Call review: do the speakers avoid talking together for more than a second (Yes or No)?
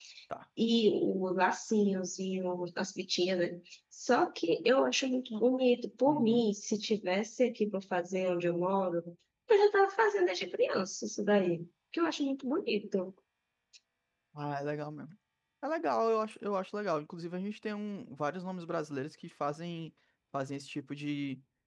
Yes